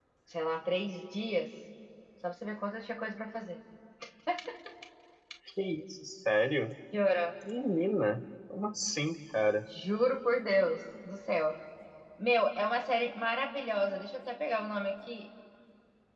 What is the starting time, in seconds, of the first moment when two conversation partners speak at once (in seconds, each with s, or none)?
none